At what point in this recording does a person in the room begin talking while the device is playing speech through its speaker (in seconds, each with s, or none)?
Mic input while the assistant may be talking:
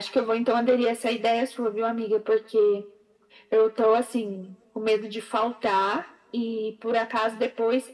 none